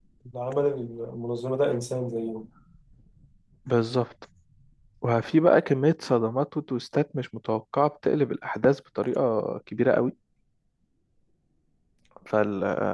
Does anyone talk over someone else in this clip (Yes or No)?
No